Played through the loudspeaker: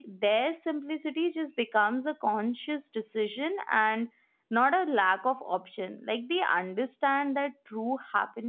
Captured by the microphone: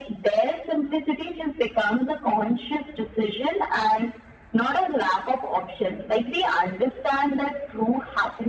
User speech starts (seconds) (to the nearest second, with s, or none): none